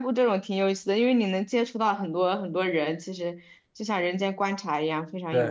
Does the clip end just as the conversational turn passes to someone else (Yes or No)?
Yes